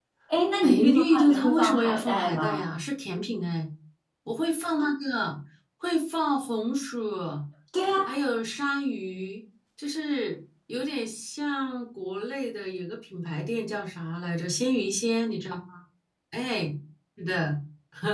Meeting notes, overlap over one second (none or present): present